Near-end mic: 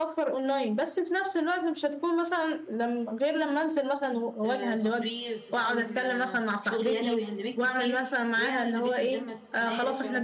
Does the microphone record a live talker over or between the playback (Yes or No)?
Yes